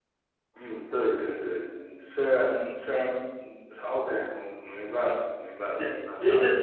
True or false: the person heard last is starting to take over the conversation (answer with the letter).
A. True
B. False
A